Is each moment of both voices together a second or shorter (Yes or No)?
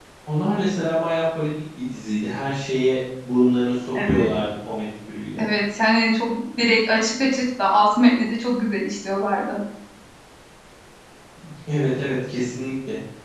Yes